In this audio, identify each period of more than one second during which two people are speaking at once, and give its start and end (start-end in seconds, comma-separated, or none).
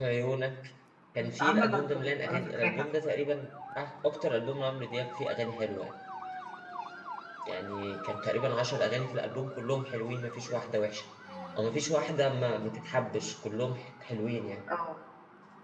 1.2-2.9